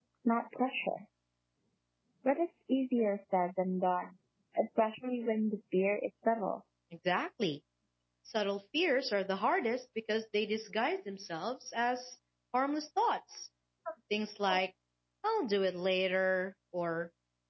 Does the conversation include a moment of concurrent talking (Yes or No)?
No